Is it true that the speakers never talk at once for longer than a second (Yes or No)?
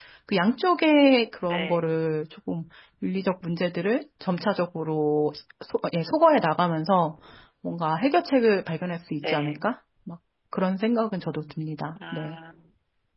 Yes